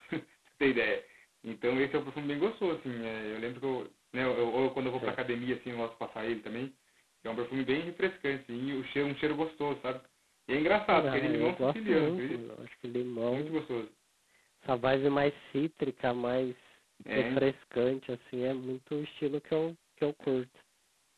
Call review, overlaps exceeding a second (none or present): present